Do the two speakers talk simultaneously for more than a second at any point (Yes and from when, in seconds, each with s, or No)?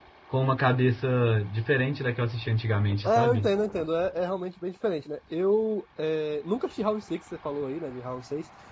No